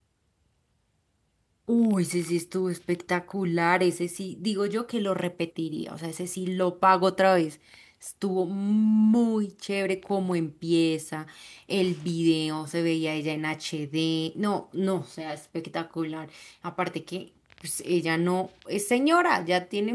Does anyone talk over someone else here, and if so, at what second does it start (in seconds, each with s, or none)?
none